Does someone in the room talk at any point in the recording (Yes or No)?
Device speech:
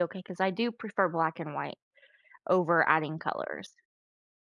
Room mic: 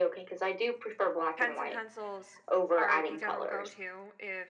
Yes